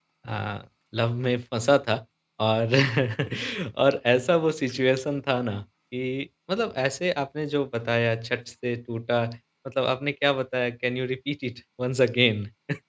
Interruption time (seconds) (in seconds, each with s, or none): none